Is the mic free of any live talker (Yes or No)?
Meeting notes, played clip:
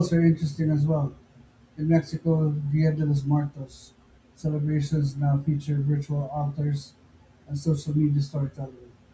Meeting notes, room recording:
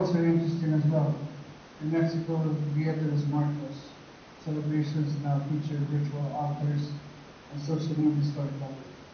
Yes